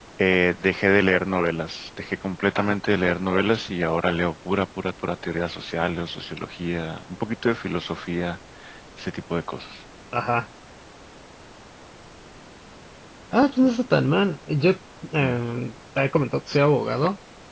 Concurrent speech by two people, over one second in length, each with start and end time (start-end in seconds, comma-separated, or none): none